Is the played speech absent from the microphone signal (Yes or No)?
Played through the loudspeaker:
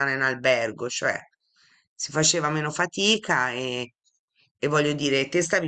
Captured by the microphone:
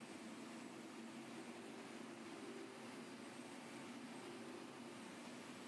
Yes